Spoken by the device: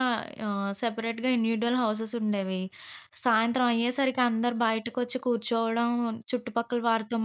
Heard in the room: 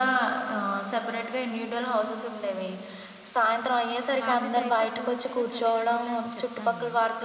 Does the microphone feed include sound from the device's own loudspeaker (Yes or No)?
Yes